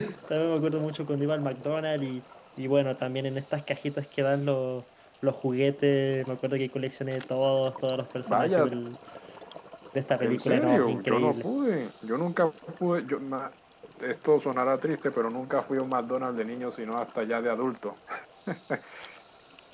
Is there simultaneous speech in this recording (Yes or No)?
Yes